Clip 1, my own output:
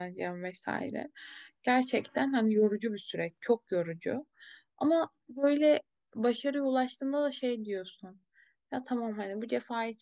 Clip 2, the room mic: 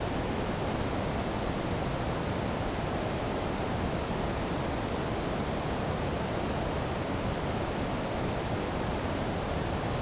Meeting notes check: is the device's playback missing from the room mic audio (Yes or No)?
Yes